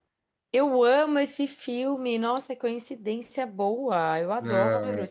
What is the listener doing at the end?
taking over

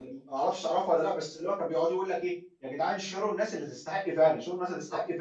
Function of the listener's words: listening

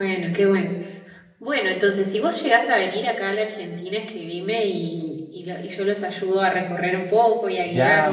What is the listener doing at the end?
taking over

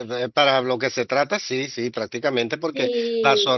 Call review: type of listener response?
listening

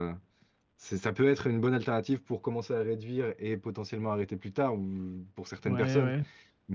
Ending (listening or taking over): listening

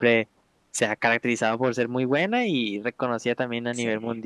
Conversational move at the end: listening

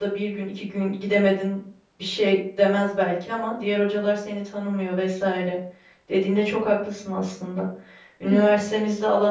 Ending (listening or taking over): listening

